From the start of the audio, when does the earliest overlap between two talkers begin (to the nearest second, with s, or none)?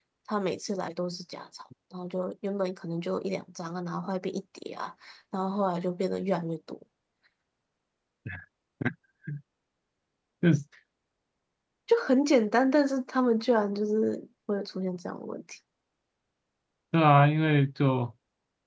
none